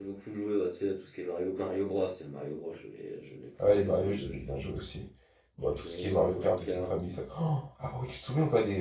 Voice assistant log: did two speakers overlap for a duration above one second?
Yes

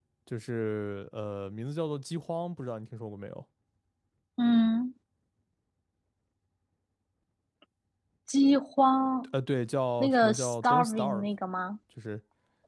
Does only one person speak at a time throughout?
No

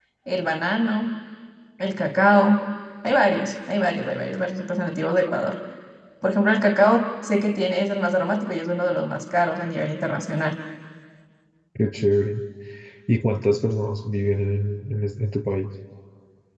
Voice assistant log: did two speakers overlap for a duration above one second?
No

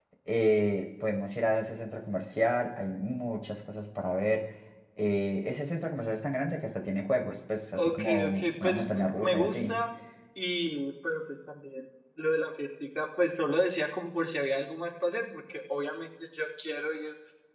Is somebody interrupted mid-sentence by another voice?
Yes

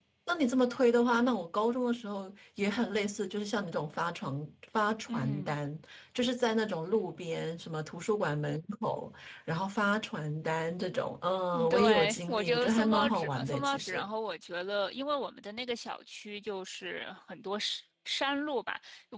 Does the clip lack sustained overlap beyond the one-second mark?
No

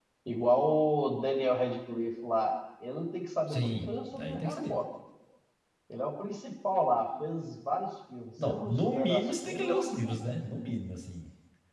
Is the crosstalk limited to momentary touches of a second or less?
No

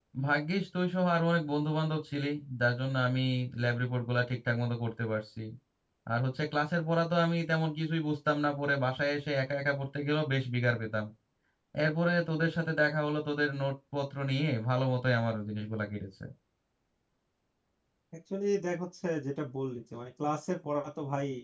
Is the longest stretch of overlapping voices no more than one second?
Yes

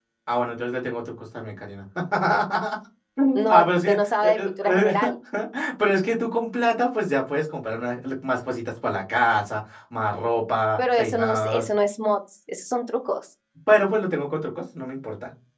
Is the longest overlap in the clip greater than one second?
Yes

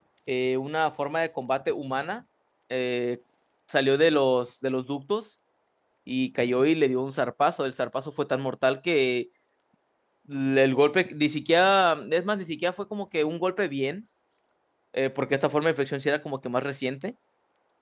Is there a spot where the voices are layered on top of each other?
No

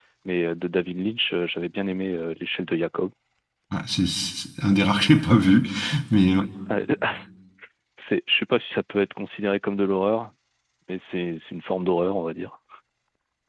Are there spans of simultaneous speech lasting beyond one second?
No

